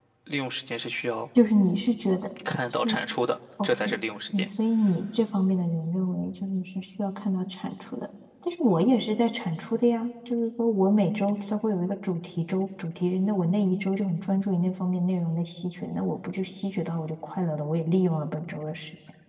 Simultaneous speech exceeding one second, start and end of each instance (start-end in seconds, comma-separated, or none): none